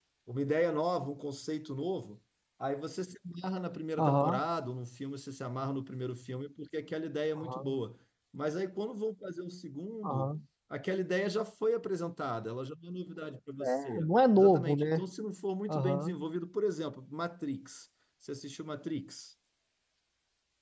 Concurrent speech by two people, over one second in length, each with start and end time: 13.6-15.0

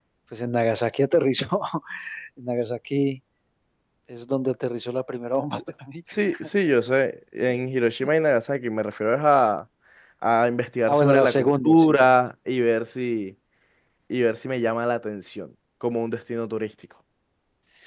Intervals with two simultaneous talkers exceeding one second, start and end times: 10.9-12.2

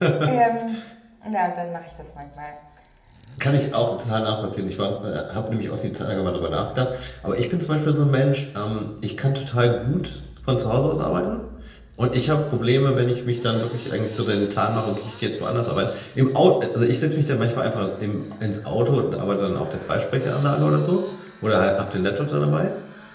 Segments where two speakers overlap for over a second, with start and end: none

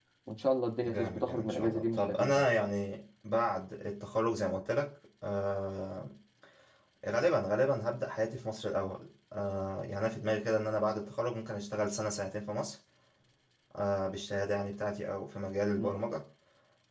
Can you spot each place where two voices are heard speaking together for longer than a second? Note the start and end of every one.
0.8-2.4

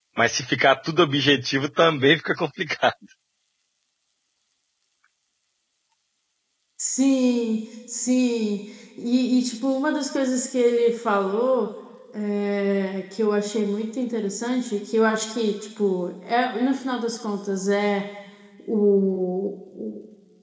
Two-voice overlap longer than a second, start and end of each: none

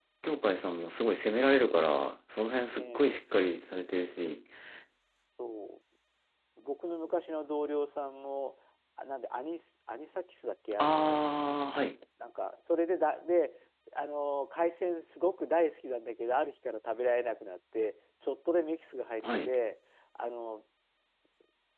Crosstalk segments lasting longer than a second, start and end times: none

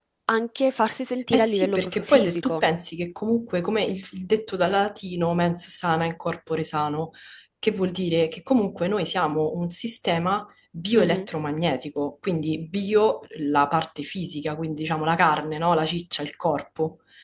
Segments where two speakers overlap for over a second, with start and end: 1.3-2.6

